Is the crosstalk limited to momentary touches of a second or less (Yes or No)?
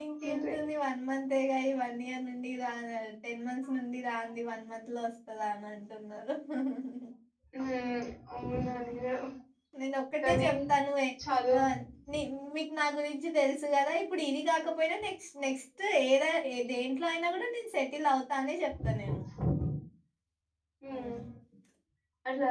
Yes